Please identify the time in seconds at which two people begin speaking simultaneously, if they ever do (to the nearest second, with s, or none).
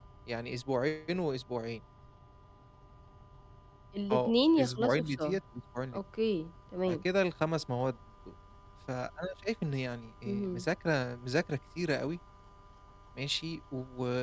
4 s